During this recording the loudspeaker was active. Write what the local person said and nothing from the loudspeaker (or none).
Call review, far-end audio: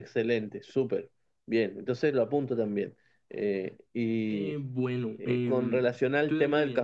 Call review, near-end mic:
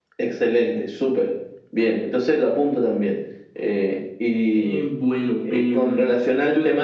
none